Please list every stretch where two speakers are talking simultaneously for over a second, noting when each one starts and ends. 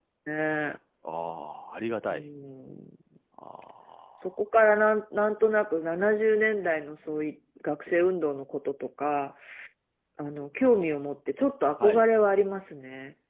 none

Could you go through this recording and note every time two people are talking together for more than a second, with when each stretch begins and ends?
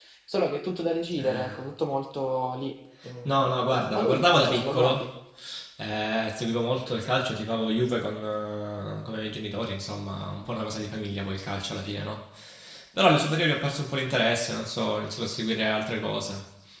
3.2-5.1

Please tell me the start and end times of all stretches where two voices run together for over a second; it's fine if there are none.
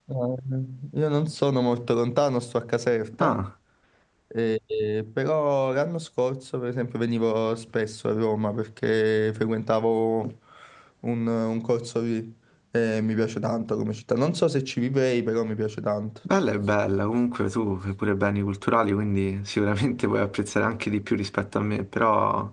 none

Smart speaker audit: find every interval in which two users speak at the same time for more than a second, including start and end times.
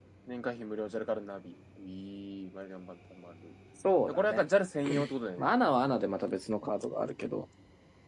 none

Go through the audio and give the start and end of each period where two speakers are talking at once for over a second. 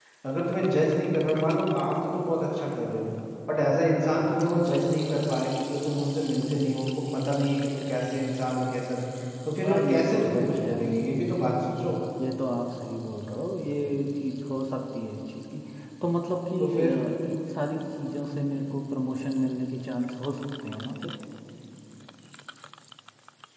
9.6-10.8

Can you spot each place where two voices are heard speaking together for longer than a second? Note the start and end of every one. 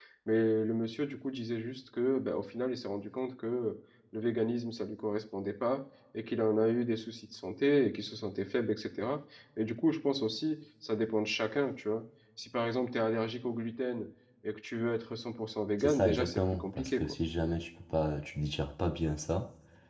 15.8-17.2

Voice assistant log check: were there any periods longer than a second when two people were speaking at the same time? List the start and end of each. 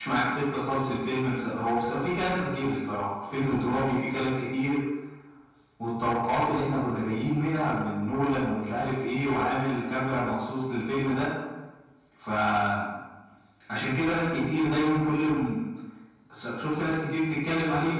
none

